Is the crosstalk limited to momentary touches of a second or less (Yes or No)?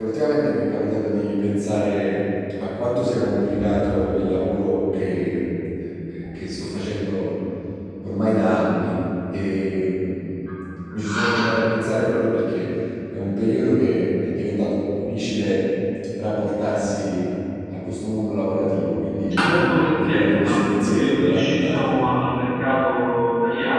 No